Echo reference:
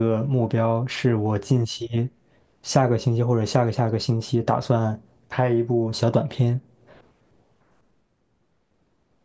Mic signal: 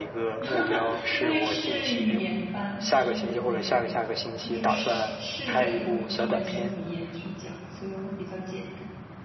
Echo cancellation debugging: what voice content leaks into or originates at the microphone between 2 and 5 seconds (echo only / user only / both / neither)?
both